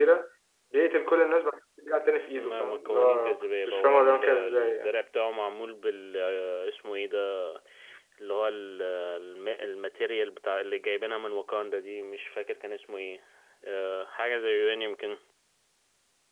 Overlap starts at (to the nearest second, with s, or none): 2 s